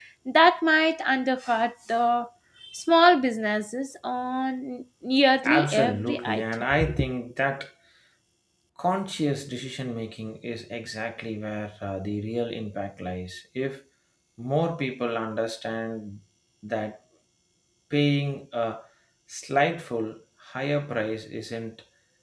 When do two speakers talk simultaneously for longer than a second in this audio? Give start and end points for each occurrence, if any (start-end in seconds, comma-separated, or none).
5.5-6.8